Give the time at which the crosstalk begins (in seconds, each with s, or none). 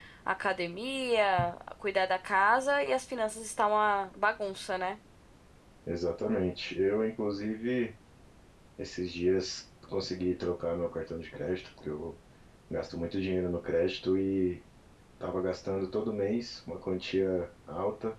none